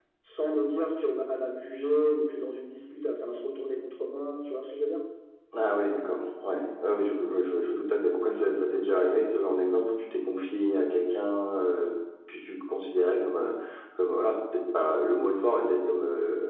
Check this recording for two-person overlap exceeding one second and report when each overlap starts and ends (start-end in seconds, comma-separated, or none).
none